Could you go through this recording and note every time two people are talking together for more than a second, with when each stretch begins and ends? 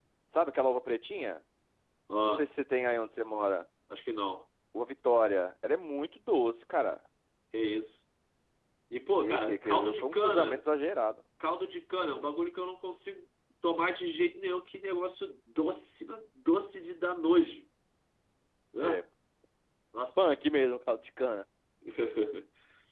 9.2-10.6

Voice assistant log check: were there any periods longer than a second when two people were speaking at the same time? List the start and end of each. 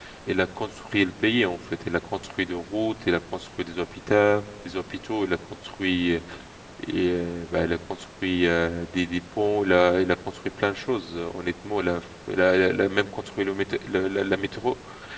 none

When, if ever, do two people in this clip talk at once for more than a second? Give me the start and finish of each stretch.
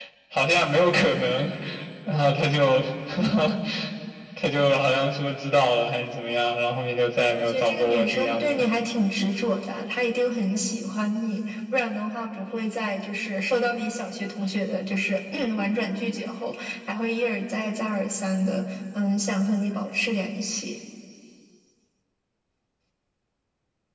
7.3-8.6

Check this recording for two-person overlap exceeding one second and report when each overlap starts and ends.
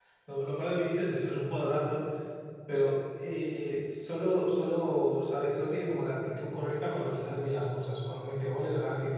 none

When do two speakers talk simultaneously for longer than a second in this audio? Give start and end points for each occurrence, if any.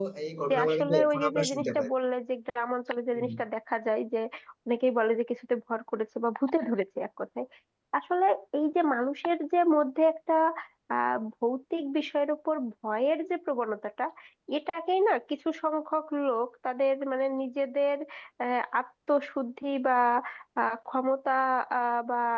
0.5-1.9

